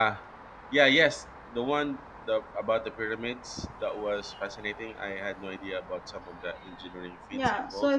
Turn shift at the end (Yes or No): Yes